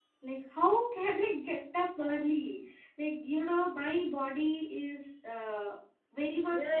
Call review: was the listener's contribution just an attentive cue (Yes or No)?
No